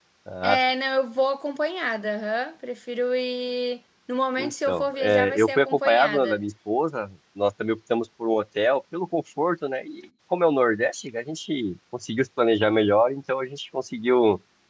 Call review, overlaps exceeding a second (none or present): present